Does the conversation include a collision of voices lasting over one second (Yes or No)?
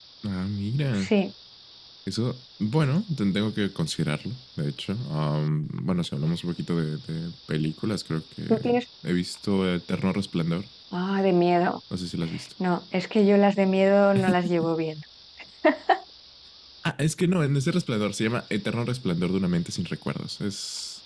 No